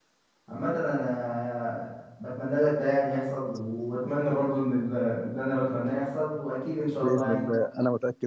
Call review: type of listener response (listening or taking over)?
taking over